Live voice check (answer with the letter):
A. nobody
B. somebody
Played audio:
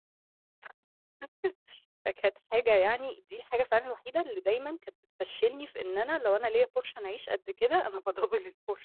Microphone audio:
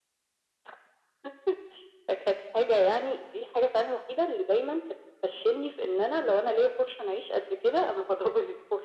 A